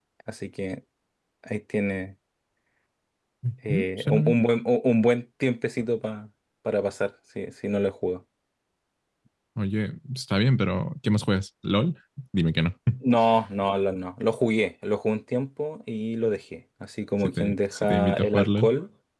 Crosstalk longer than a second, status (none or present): present